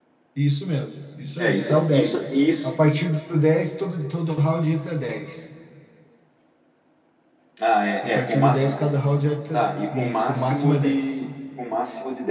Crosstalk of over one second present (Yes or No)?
Yes